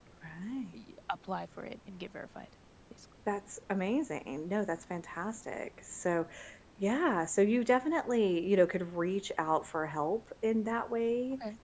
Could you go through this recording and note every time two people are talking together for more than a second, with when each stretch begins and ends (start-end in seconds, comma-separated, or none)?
none